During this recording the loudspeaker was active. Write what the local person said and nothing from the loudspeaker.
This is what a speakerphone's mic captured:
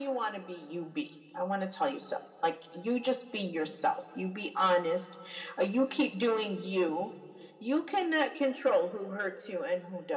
none

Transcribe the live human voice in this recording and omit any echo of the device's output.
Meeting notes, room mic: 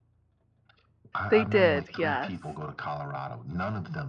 they did, yes.

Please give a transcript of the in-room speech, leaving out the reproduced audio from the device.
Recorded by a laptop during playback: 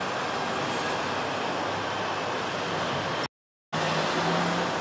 none

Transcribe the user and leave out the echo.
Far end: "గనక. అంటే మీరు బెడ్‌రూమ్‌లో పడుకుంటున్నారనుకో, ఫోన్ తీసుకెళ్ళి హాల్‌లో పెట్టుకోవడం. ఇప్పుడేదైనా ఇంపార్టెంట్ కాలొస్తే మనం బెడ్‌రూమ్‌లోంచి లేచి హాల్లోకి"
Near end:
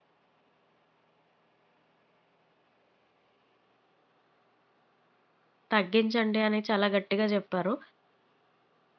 తగ్గించండి అని చాలా గట్టిగా జెప్పారు.

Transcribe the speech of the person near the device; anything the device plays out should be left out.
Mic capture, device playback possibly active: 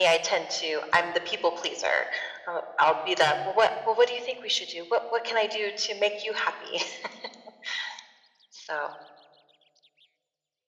none

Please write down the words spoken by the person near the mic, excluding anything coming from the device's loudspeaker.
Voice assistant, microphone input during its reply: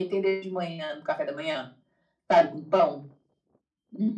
none

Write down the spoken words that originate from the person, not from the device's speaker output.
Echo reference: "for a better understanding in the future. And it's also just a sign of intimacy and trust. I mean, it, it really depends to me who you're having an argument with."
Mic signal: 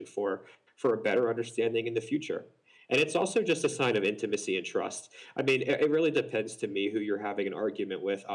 none

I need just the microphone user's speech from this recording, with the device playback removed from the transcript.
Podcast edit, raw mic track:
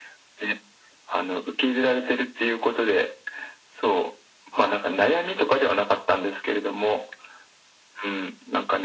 none

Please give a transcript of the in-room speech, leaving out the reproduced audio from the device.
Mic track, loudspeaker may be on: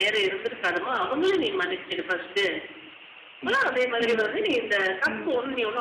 உண்மதான், உண்மதான். ம்.

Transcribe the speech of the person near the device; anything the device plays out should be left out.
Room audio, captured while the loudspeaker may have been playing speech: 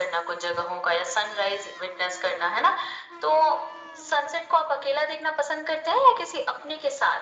none

